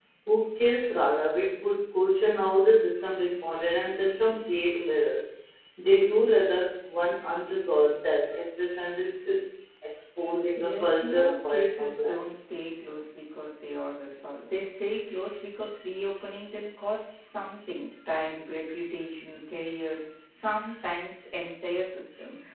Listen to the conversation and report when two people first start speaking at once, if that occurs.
10.6 s

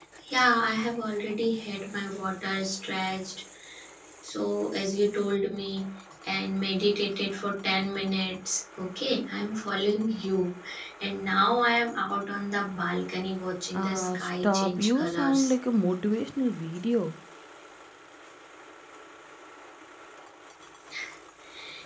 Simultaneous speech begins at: 13.7 s

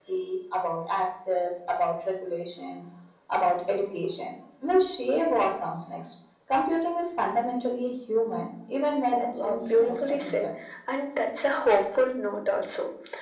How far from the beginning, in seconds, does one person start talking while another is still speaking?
9.1 s

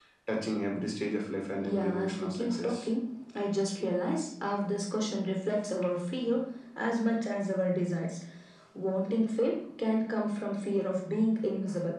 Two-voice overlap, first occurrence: 1.6 s

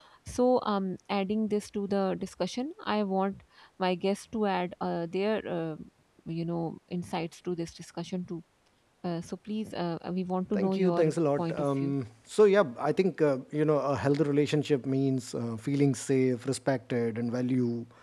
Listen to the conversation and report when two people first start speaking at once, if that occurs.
10.6 s

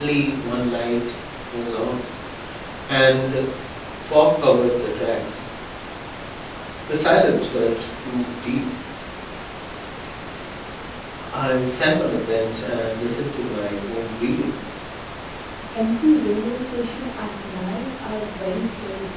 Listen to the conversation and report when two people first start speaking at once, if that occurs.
none

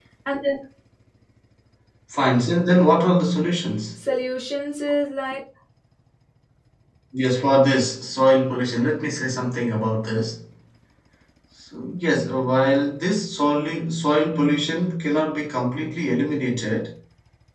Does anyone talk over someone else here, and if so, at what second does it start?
none

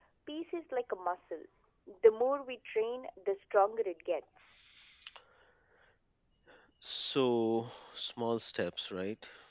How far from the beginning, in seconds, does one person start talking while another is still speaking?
none

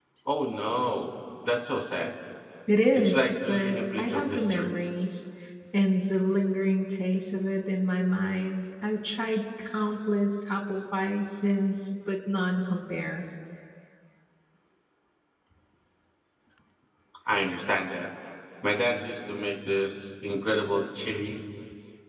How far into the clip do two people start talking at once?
2.9 s

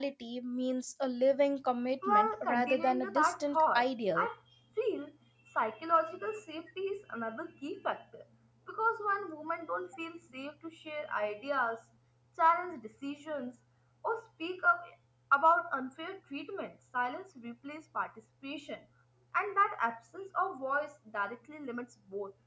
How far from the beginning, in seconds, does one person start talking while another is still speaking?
2.0 s

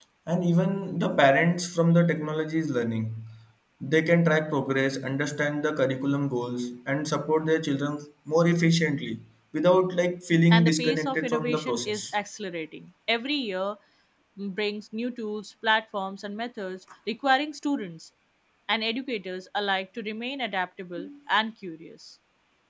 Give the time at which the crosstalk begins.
10.5 s

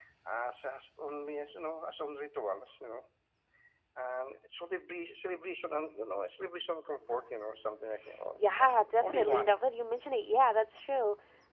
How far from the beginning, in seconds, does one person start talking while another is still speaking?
8.4 s

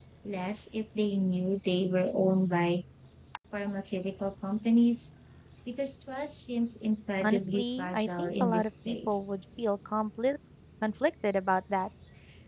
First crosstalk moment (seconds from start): 7.2 s

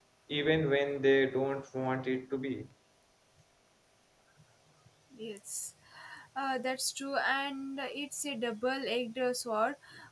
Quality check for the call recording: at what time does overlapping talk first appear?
none

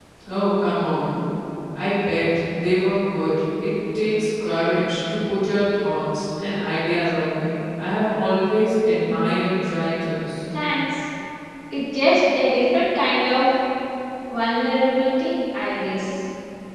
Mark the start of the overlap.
none

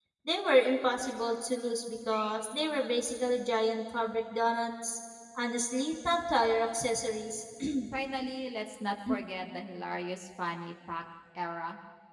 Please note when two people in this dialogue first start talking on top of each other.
none

